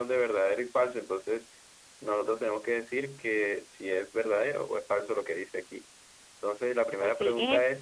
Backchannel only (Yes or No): No